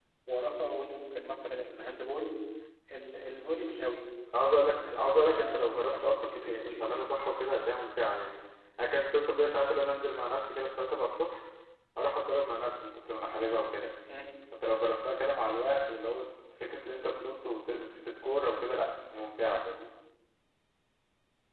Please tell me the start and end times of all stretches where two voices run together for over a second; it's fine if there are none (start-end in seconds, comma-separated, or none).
4.4-6.8